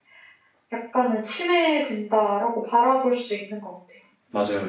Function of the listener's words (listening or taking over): taking over